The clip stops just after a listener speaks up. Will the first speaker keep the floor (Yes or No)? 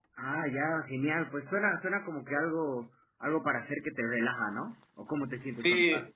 No